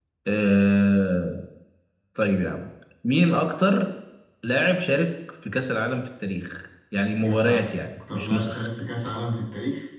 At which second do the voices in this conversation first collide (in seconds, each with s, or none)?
7.2 s